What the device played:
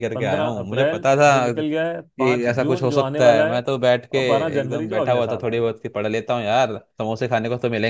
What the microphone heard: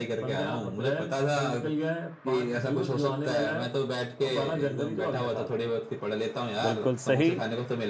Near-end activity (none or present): present